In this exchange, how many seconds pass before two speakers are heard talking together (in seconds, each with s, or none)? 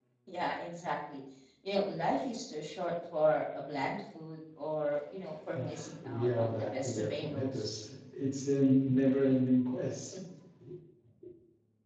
5.5 s